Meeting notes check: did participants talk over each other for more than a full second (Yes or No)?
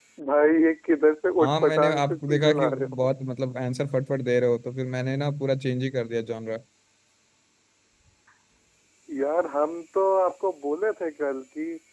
Yes